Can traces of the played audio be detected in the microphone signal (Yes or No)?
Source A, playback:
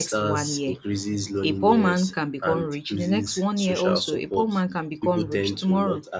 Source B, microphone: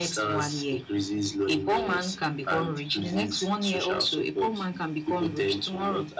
Yes